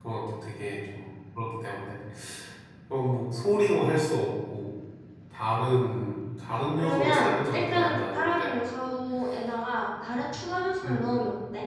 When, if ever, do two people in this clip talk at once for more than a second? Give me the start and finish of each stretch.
6.8-8.5

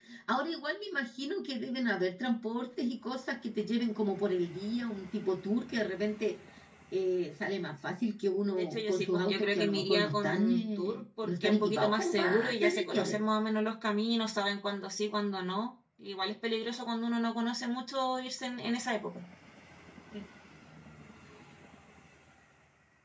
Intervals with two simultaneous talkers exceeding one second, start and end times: 8.5-13.1

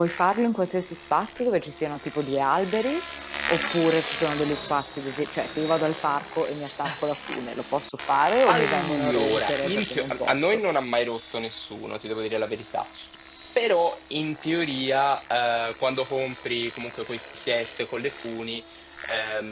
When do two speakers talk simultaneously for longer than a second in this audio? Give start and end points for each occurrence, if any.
8.5-10.6

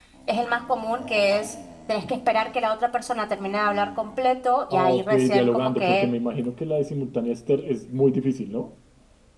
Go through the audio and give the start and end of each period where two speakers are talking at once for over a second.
4.7-6.1

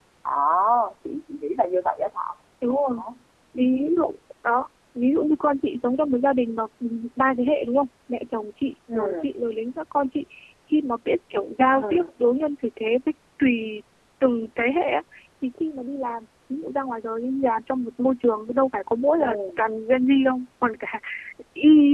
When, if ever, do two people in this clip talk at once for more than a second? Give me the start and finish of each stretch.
none

